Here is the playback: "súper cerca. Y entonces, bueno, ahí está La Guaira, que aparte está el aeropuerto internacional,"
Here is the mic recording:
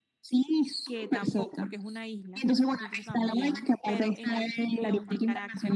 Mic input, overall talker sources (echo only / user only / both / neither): both